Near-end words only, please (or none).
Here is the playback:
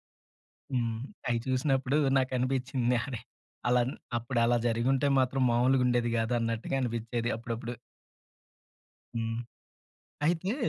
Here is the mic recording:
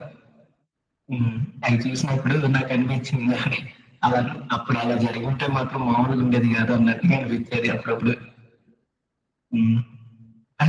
none